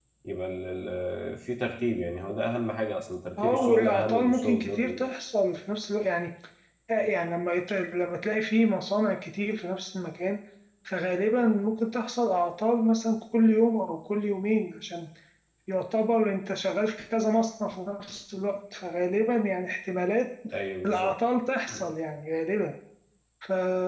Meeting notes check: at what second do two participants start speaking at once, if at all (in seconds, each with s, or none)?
3.4 s